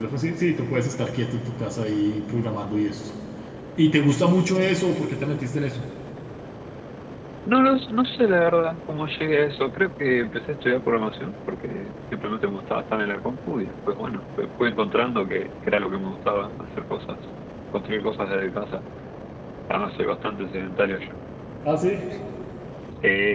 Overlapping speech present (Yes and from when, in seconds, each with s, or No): No